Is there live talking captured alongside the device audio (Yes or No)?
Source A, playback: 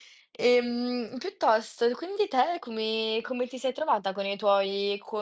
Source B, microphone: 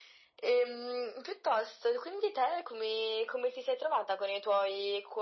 No